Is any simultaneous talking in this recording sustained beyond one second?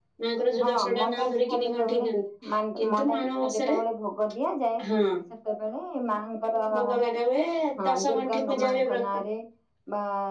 Yes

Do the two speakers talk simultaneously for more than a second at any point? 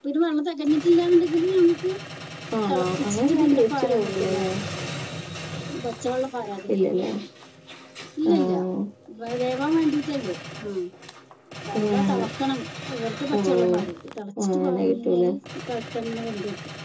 Yes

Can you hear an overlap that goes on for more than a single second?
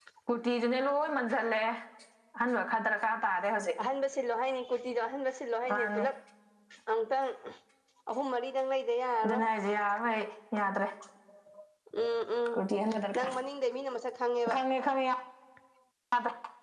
No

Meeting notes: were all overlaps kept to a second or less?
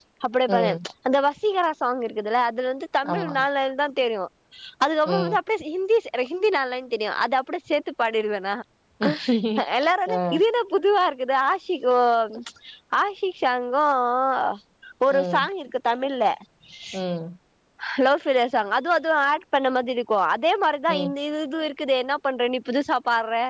Yes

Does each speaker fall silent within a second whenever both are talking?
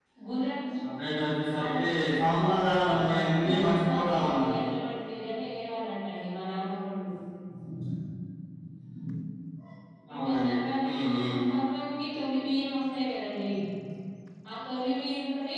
No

